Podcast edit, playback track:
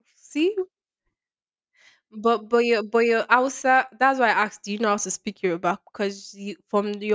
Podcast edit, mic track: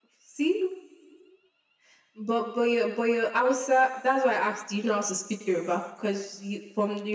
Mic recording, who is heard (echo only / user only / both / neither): echo only